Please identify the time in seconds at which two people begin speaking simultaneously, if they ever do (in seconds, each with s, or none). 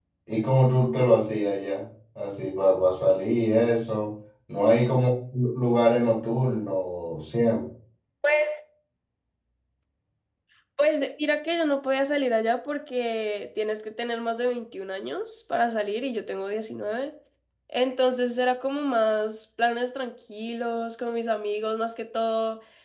none